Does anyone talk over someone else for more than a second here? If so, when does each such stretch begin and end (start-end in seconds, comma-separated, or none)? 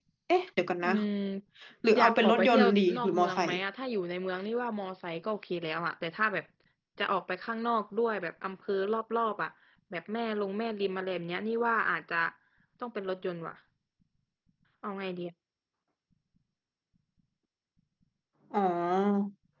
2.0-3.6